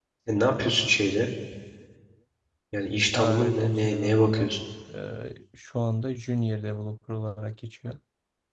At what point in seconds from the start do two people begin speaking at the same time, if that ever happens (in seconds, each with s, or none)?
3.2 s